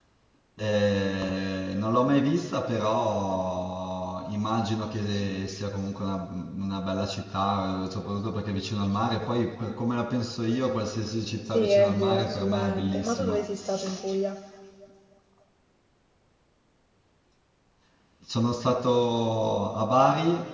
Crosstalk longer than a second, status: present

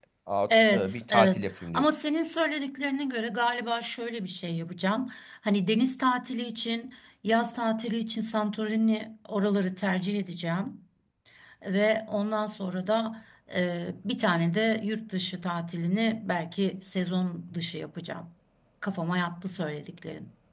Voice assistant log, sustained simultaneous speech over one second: present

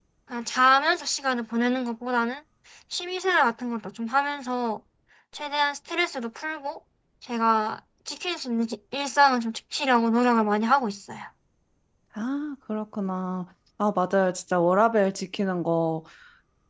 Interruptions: none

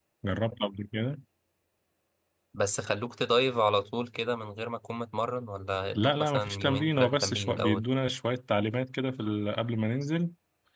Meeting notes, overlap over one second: present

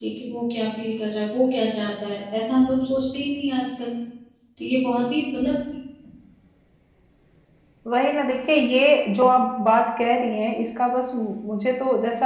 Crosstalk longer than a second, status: none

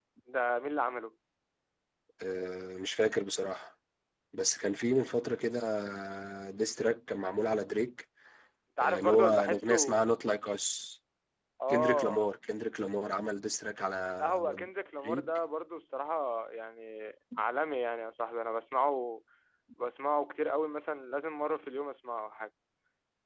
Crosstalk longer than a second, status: present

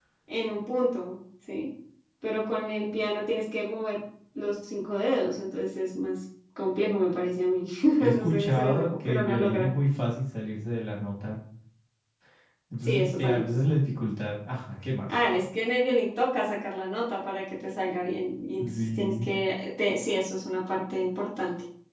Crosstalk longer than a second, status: present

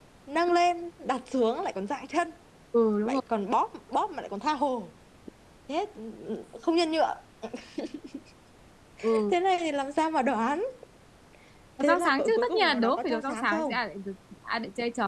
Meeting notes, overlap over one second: present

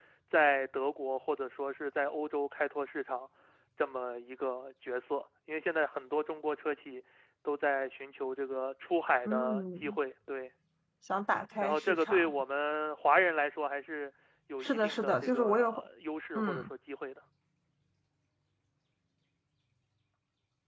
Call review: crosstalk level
present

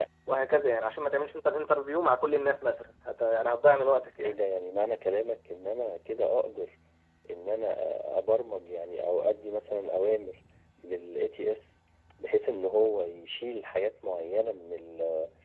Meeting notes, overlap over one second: none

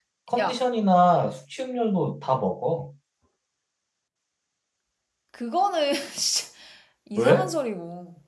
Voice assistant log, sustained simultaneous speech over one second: none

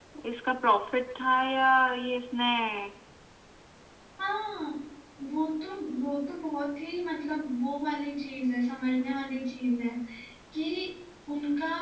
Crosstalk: none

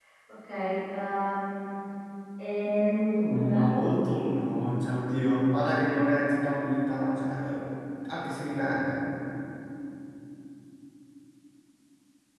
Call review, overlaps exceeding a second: present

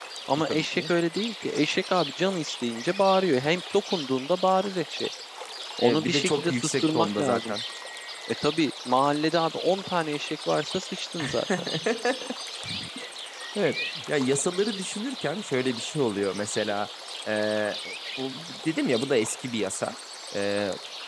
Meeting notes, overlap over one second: present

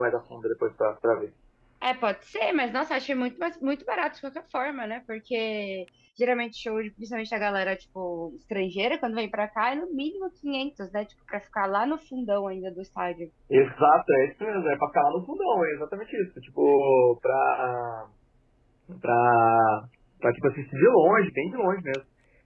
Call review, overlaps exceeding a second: none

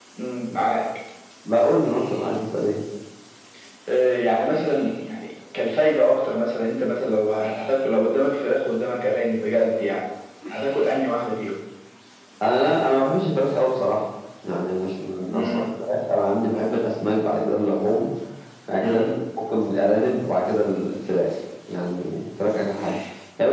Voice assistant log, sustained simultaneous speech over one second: none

